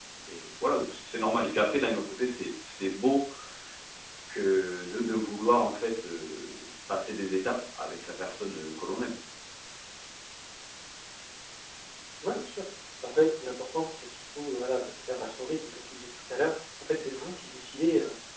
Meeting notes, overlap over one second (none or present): none